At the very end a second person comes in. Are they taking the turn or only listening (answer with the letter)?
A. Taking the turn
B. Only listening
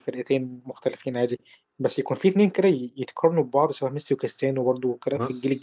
A